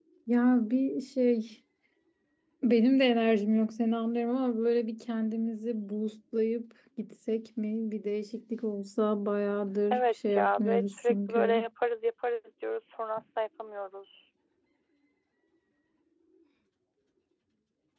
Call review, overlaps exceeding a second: present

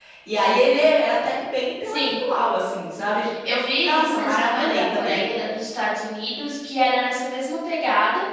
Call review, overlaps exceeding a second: present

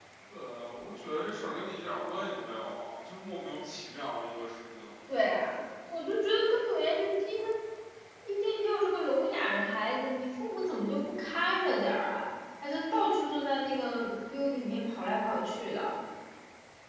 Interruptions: none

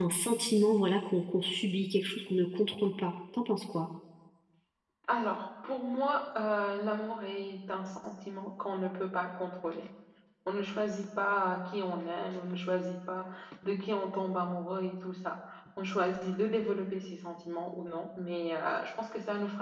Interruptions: none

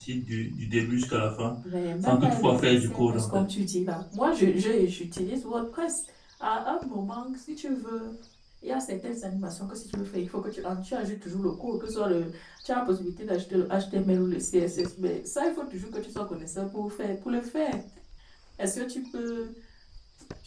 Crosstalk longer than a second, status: present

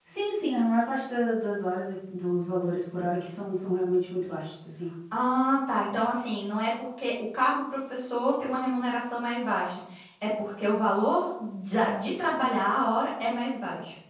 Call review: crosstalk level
none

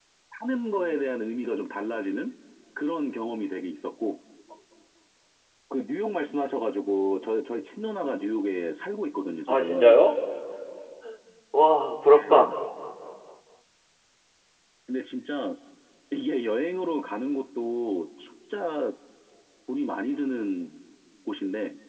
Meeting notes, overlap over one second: none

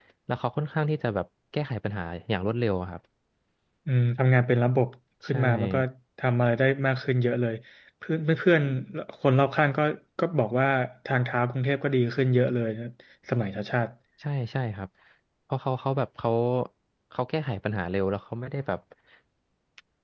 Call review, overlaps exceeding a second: none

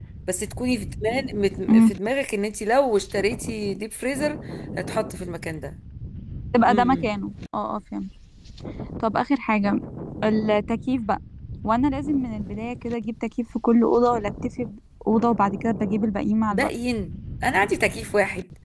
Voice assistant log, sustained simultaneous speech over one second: none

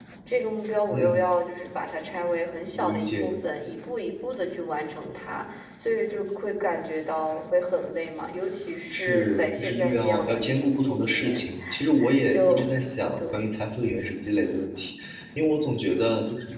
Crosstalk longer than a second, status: present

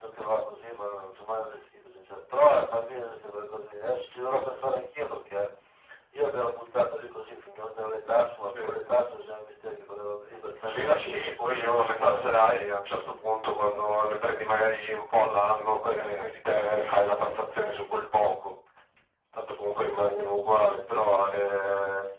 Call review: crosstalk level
present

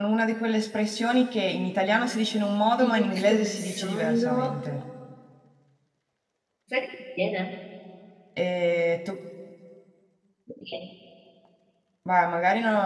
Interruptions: present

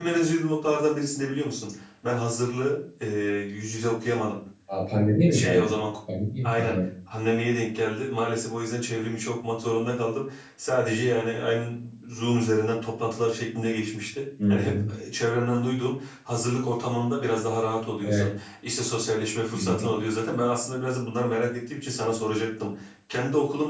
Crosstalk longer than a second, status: none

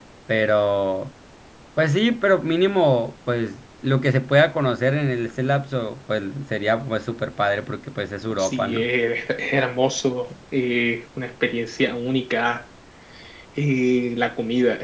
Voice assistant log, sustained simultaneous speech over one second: none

